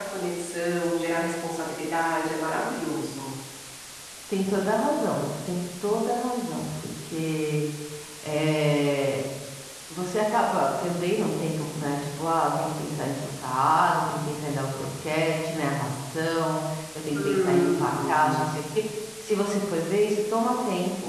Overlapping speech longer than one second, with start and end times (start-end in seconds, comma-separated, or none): 17.2-18.4